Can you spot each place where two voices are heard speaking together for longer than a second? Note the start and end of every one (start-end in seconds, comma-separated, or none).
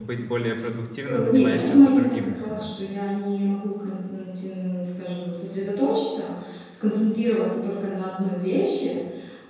1.1-2.7